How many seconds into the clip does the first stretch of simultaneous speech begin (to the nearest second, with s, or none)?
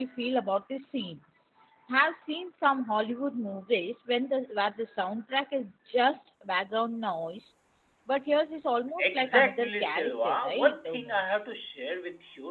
9 s